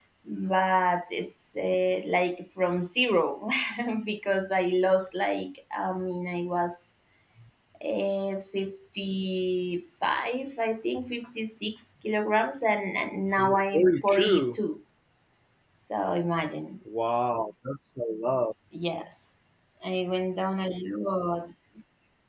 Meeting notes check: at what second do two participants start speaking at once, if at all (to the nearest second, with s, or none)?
13 s